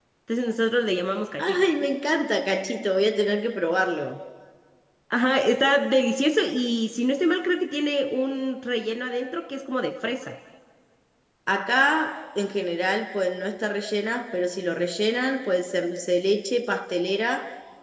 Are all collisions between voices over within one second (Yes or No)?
Yes